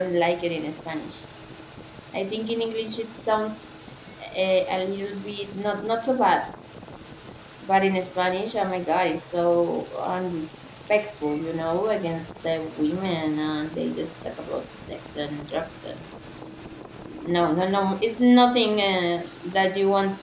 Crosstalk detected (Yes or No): No